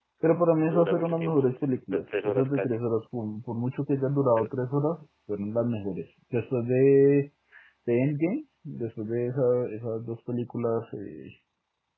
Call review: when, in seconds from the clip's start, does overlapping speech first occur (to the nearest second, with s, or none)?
1 s